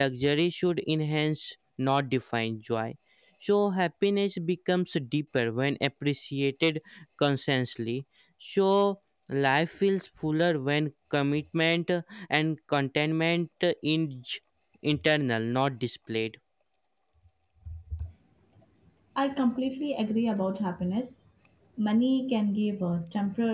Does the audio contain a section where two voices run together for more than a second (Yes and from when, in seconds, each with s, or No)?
No